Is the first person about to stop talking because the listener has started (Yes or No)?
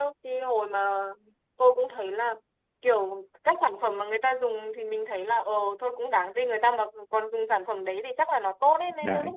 No